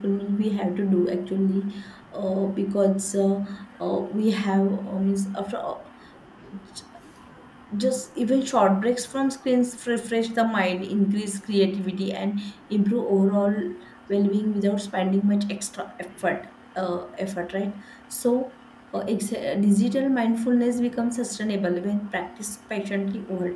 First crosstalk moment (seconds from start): none

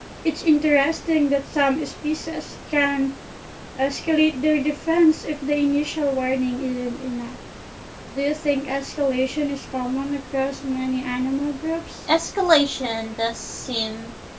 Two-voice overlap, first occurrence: none

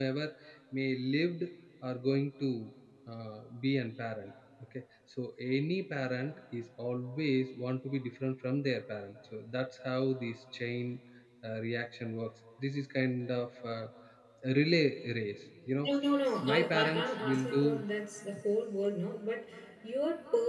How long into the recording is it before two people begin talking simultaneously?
16.4 s

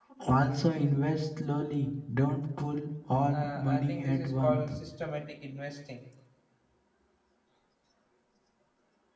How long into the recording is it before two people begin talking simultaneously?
3.3 s

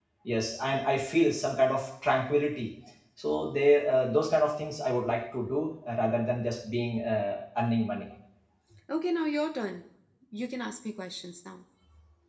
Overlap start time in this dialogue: none

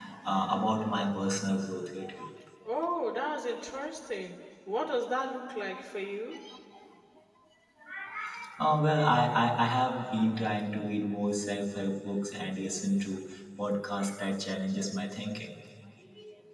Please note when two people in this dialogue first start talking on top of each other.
none

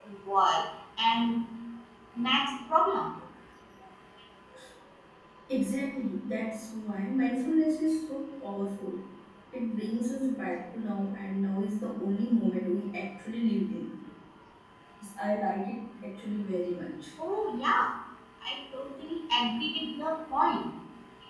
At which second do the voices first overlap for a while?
none

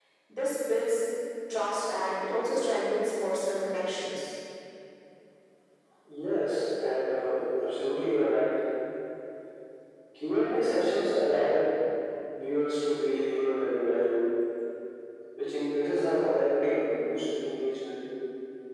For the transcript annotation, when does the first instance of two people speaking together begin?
none

